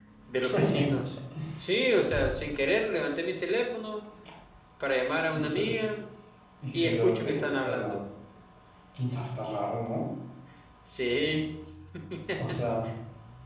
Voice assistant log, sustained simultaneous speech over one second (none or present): present